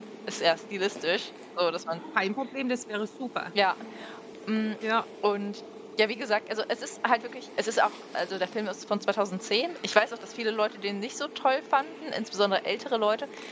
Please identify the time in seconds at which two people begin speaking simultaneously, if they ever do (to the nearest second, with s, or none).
none